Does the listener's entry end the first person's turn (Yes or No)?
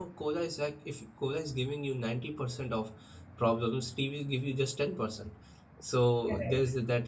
No